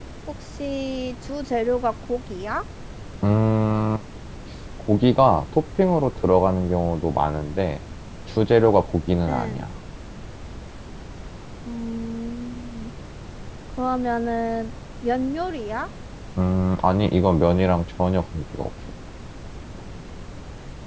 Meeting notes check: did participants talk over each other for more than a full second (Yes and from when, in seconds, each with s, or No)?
No